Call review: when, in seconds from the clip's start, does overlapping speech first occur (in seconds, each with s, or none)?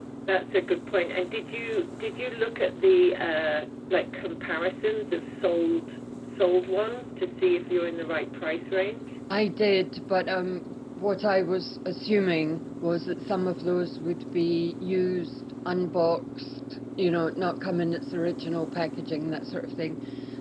none